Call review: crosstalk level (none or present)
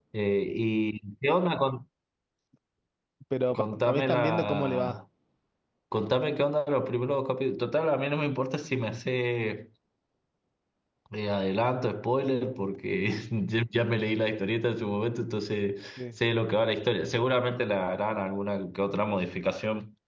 present